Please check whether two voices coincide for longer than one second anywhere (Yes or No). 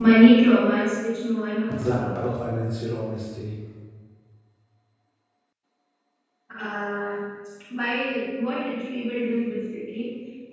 No